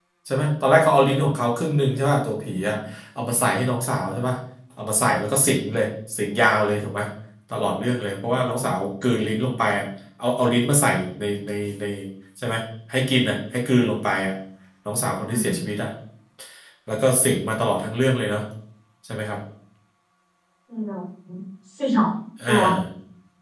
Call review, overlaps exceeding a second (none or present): none